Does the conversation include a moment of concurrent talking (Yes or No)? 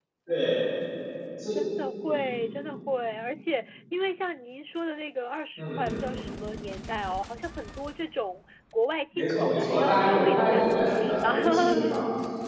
Yes